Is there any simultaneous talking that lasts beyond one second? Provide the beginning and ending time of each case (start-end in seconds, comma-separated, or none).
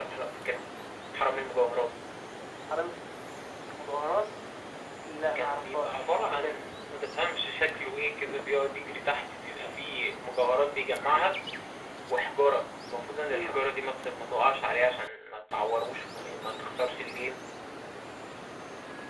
5.3-6.6